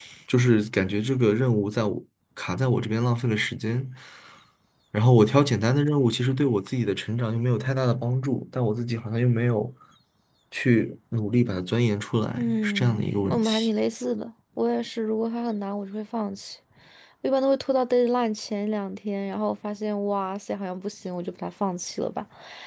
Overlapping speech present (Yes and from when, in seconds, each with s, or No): Yes, from 12.4 s